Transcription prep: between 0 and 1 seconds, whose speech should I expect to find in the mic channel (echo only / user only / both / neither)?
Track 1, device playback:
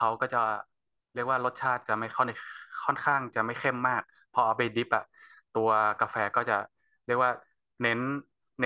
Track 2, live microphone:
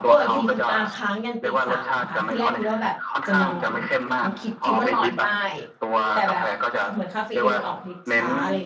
both